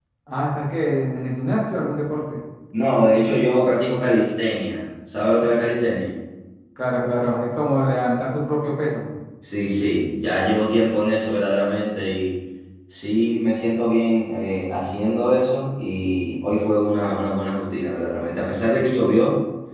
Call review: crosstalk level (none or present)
none